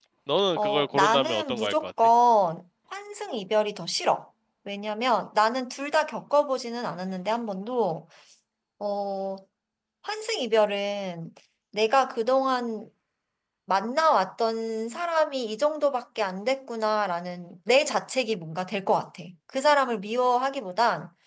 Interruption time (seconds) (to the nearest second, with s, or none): 1 s